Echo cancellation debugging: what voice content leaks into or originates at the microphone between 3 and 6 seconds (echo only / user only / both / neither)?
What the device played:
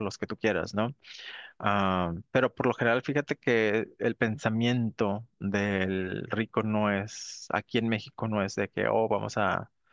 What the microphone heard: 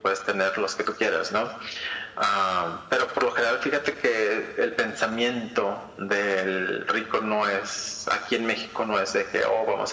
echo only